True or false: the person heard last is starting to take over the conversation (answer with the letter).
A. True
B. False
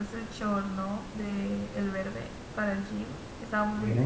A